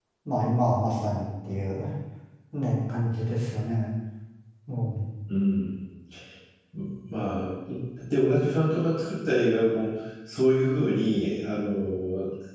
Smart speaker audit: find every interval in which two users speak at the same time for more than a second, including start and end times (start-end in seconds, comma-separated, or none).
none